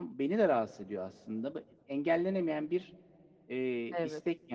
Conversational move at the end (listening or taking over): listening